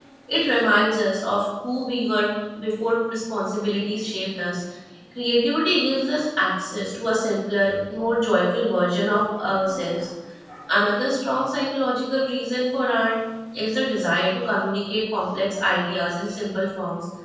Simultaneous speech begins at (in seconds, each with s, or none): none